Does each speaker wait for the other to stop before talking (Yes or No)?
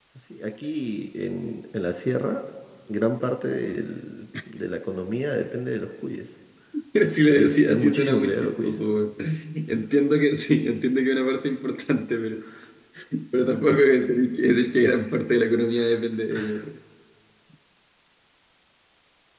No